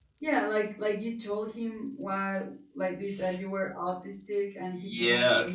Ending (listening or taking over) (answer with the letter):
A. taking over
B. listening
A